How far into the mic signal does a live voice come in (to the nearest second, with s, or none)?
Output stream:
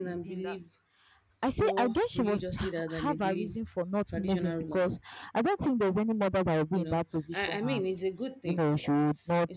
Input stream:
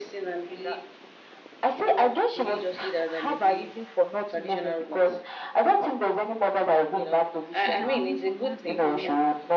8 s